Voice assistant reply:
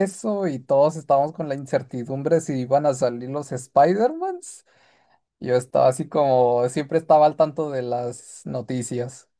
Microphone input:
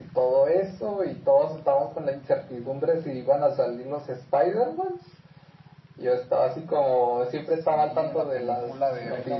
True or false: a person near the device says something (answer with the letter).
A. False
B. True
B